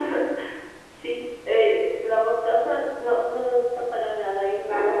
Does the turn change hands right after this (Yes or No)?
No